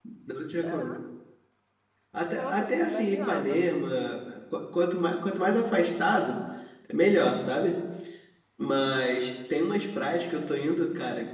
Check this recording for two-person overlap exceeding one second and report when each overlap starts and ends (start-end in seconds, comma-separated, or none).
2.3-3.6